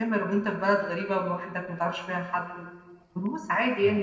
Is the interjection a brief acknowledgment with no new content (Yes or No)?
Yes